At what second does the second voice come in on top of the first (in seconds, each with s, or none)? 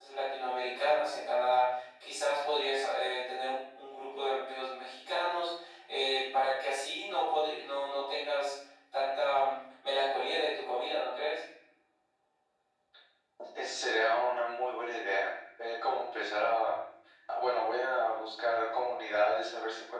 none